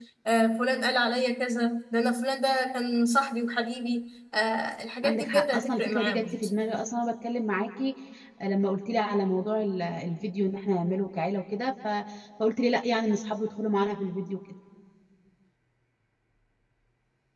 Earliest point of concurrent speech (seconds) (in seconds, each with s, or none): 5.0 s